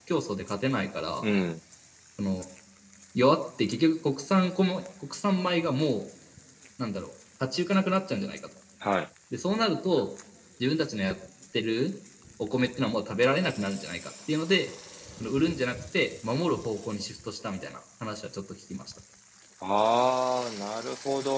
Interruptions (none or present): none